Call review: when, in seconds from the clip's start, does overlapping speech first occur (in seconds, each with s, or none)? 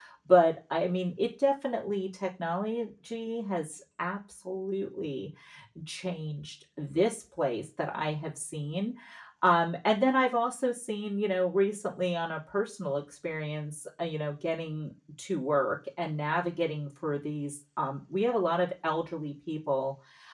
none